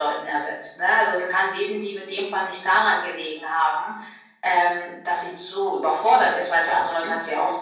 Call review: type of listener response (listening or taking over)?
taking over